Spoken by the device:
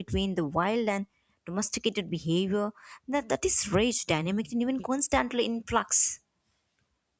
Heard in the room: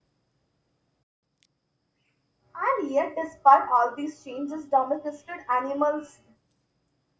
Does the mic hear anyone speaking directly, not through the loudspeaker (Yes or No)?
Yes